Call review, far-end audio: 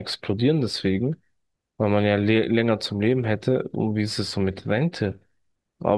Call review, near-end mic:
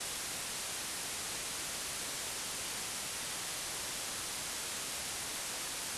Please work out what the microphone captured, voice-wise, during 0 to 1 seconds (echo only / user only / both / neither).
neither